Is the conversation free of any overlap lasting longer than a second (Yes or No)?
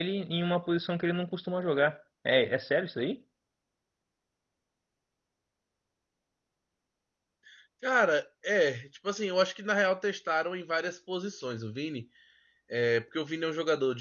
Yes